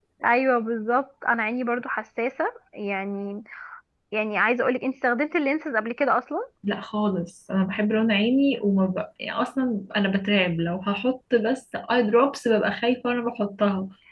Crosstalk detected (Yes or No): No